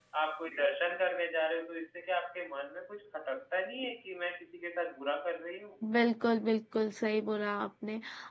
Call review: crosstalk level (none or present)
none